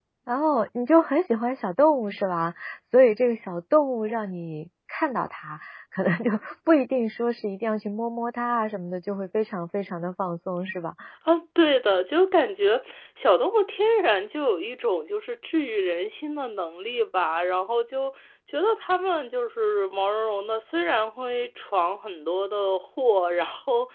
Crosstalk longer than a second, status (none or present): none